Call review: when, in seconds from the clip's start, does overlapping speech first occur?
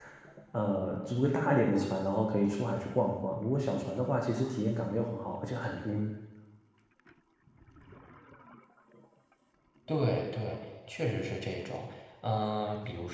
none

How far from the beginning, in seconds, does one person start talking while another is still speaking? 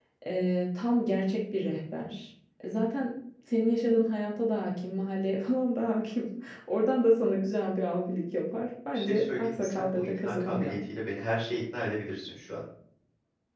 8.9 s

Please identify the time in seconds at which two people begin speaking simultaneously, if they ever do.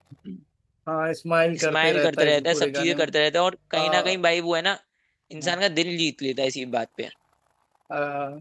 1.6 s

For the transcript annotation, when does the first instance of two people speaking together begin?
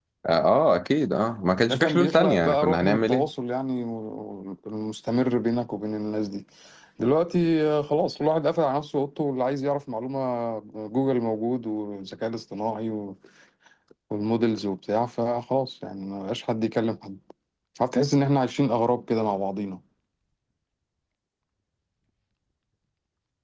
1.6 s

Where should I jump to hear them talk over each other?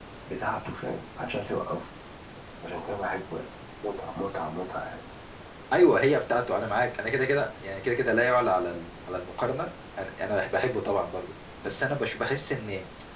none

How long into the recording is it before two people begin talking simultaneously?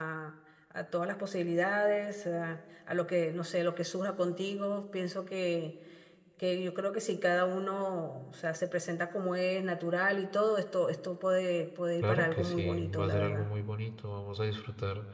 12.0 s

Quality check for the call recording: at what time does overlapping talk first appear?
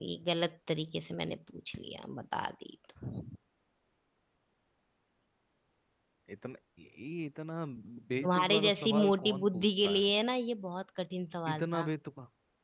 8.2 s

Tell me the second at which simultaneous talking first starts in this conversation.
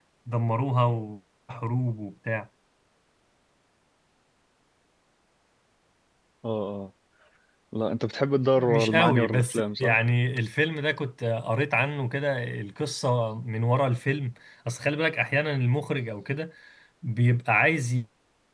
8.6 s

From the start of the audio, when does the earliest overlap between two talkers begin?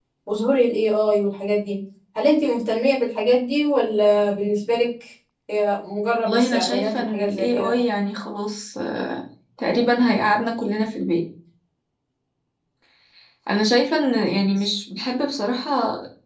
6.2 s

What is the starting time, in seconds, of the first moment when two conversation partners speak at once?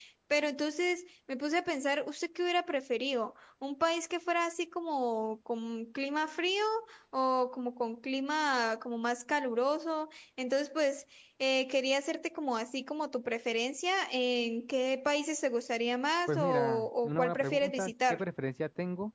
16.3 s

